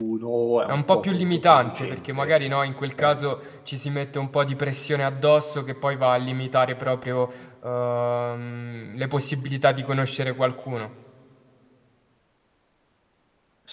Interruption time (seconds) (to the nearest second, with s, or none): 1 s